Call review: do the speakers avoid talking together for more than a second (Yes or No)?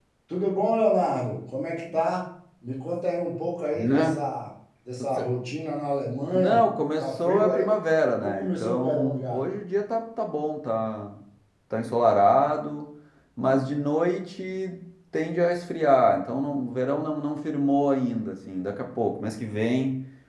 No